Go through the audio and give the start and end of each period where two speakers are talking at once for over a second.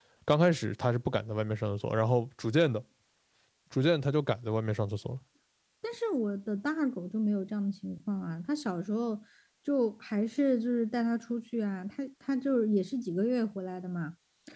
none

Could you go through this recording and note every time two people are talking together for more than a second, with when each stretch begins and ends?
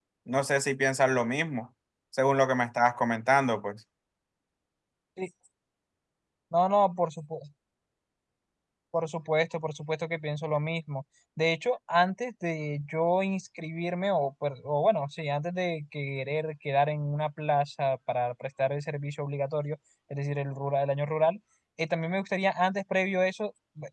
none

